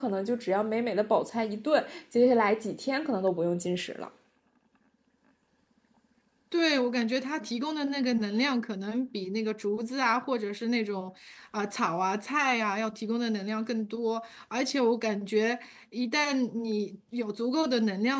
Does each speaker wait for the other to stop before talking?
Yes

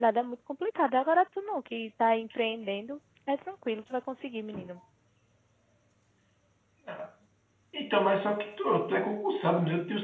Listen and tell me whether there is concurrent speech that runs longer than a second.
No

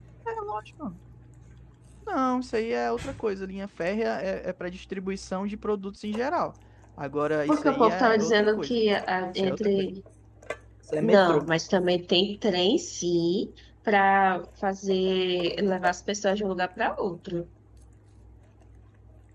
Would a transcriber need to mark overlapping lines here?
Yes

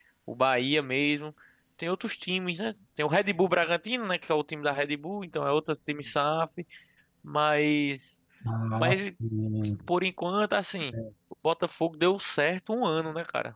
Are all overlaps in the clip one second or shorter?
Yes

